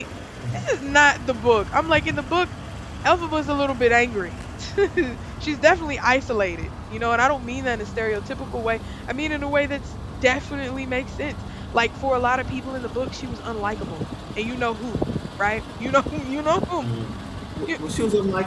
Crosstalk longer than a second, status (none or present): none